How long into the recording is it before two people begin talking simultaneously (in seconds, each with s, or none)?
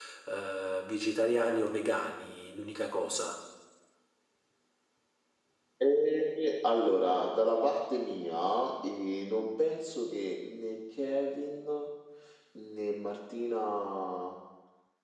none